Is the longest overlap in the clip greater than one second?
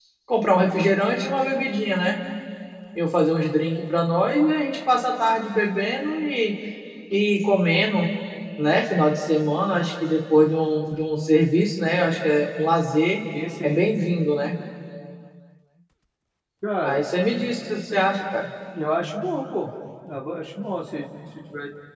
No

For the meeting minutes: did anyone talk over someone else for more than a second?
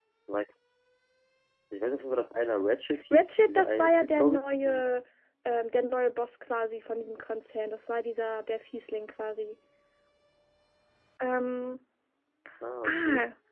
Yes, from 3.1 s

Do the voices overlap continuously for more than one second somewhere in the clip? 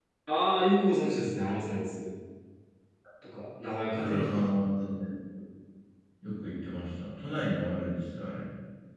No

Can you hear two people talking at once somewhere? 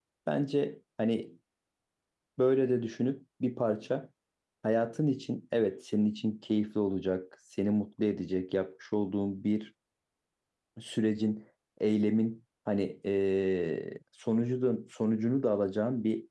No

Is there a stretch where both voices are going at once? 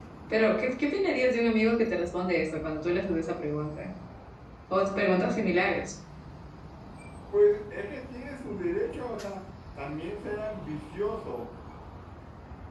No

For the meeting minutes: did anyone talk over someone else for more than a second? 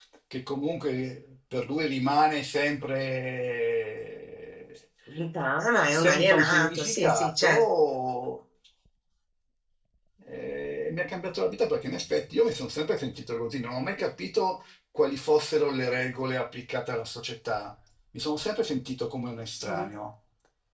Yes, from 5.9 s

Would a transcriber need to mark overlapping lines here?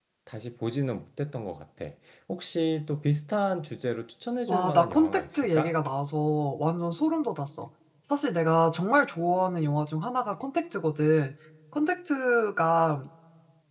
Yes, from 4.5 s

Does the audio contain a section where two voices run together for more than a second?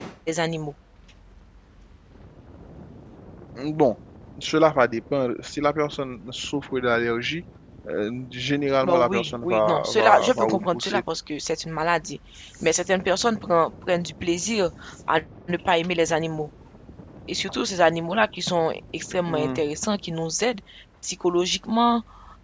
Yes, from 8.8 s

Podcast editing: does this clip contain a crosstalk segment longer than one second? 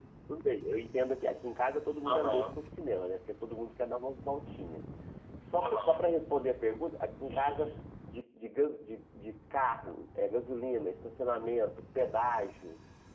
No

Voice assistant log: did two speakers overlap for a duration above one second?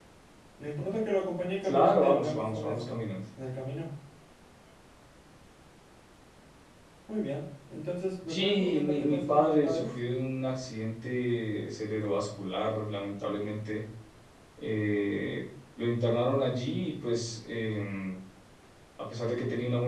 Yes, from 1.6 s

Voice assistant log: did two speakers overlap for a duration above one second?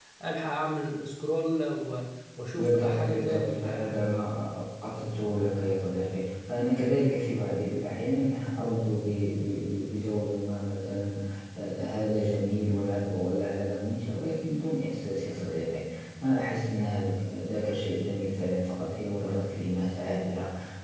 Yes, from 2.5 s

